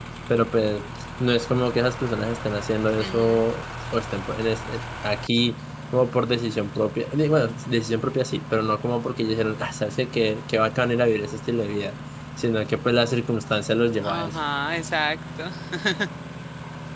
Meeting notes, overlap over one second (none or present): none